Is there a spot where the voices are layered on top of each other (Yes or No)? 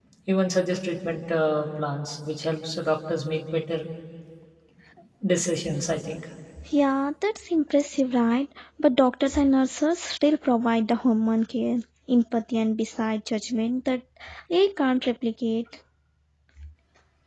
No